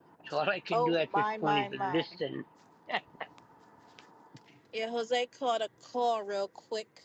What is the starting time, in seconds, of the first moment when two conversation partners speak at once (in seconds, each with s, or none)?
0.7 s